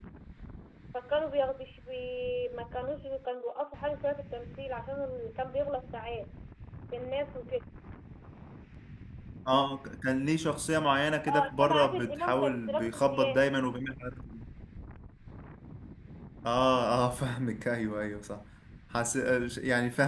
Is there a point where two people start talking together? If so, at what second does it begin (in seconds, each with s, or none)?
11.3 s